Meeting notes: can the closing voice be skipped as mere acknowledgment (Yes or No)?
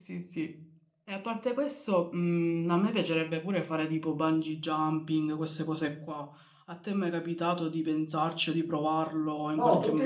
No